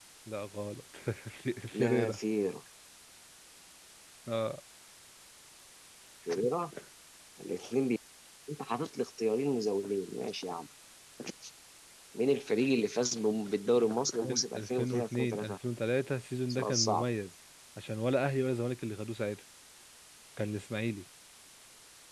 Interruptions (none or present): present